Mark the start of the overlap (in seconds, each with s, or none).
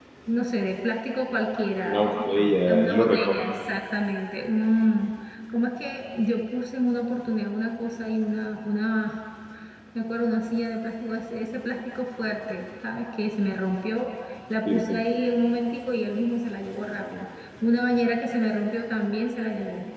1.9 s